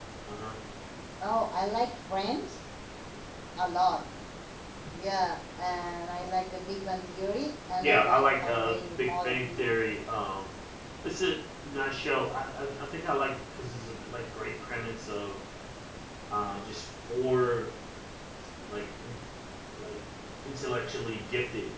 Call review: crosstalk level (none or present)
present